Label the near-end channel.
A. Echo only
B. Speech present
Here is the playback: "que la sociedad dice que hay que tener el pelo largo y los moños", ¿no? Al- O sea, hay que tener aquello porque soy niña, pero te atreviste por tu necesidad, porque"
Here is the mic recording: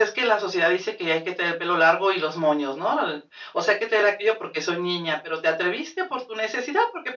A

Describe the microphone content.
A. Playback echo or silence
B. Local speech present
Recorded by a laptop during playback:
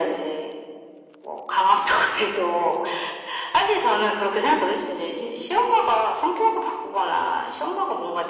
A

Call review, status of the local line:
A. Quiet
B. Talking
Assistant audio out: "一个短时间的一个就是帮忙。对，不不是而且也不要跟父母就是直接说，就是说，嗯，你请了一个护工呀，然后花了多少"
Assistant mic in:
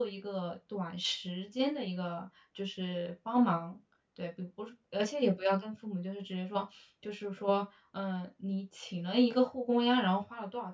A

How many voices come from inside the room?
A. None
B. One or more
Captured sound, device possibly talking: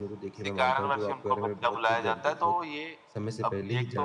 B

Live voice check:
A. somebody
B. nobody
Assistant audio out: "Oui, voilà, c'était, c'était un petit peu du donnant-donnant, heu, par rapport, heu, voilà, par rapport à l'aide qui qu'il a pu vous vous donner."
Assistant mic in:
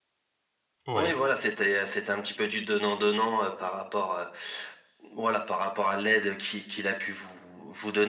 A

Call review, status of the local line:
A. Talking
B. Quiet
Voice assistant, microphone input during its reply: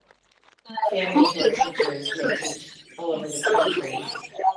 A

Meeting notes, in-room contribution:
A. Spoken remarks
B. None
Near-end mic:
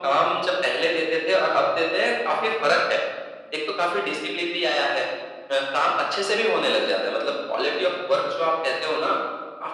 B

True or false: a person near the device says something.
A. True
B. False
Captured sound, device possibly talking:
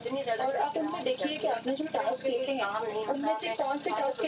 B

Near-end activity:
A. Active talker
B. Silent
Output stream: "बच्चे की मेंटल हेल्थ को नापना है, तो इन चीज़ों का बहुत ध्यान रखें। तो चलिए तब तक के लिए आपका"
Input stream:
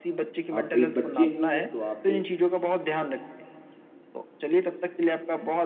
A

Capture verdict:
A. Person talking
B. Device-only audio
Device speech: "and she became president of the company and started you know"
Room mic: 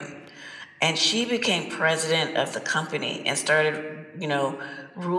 B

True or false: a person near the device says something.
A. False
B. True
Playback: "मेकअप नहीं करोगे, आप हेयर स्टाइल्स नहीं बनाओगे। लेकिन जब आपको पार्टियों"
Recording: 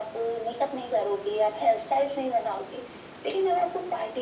A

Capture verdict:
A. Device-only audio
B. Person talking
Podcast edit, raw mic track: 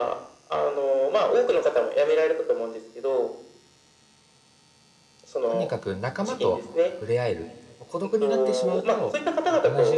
B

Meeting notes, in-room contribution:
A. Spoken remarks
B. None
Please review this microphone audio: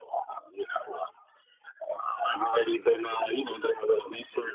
B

